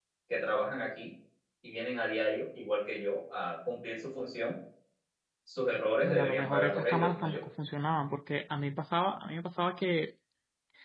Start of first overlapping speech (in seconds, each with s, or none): 6.0 s